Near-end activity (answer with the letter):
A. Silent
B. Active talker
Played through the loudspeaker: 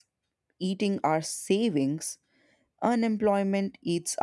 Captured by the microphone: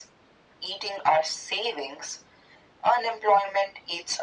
A